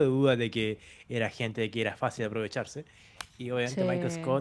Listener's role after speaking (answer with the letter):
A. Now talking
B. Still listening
B